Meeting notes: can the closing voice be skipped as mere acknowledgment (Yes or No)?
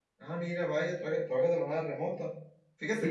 Yes